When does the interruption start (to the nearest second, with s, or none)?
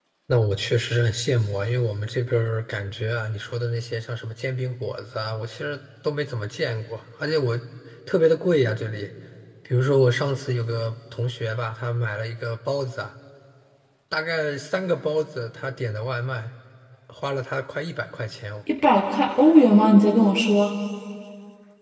none